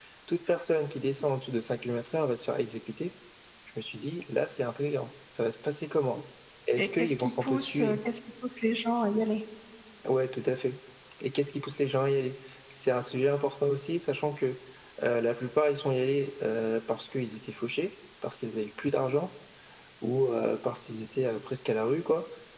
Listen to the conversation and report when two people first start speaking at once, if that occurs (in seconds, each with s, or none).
6.8 s